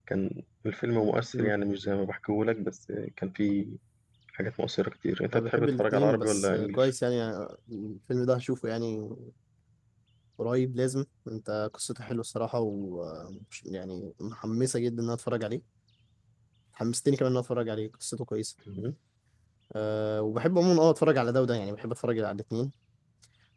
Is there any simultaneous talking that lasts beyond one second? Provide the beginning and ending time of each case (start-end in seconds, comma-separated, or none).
5.3-6.9